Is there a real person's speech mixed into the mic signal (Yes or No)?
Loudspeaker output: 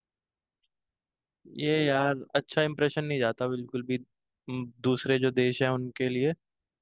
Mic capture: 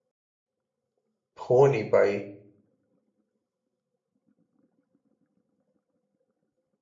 Yes